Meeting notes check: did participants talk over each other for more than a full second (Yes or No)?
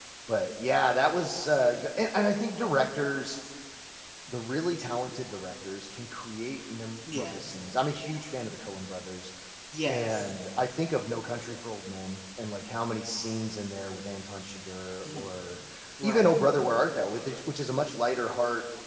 No